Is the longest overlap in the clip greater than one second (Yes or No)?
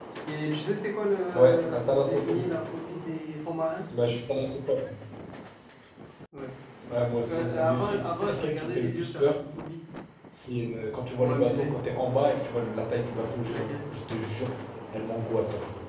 Yes